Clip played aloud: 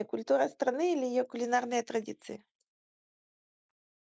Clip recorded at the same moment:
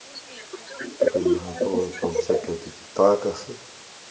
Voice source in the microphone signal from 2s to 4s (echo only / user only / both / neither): both